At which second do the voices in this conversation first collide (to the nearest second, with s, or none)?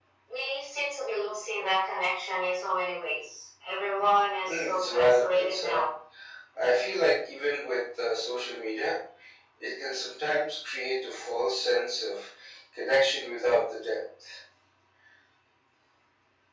4 s